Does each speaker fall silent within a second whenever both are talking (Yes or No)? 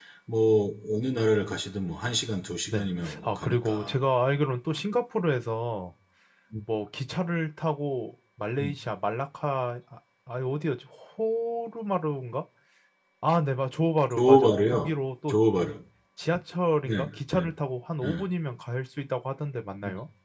No